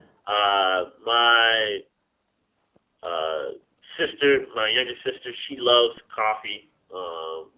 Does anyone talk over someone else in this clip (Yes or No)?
No